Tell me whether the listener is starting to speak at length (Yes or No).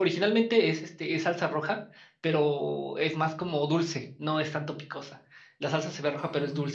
No